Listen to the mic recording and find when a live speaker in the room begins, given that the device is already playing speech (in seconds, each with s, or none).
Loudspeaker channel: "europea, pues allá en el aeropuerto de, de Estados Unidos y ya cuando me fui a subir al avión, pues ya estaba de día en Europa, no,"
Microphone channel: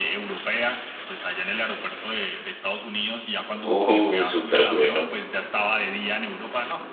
3.6 s